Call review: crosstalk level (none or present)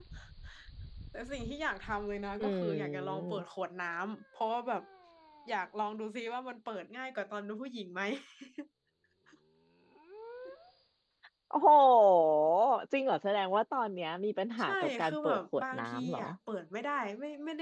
present